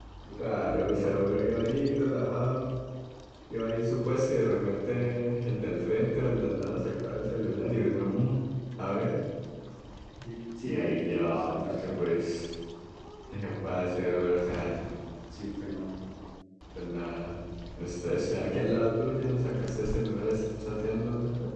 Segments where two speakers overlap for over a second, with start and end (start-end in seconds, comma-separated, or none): 10.6-12.0